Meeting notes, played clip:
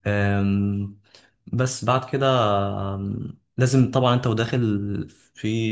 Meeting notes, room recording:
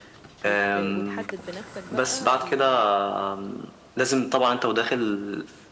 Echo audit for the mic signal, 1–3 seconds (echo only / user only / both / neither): both